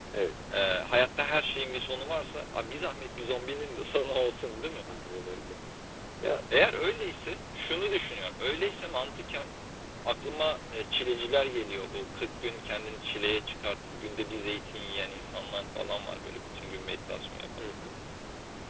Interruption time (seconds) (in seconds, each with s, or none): none